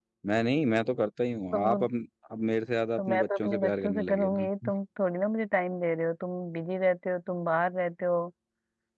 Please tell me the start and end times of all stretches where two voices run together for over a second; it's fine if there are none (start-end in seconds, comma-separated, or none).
3.0-4.5